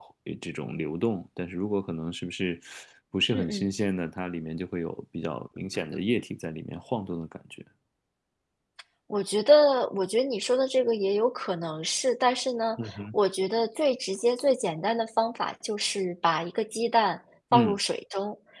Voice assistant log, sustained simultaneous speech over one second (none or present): none